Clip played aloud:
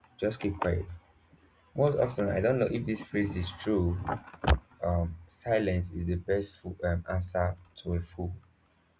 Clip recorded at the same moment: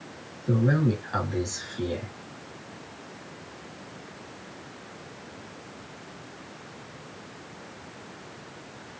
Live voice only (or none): So when we have this fear,